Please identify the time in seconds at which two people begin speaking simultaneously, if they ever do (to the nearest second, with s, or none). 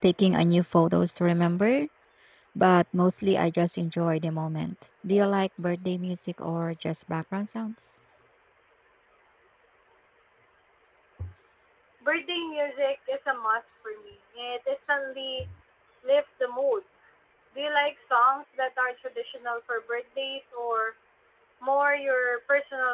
none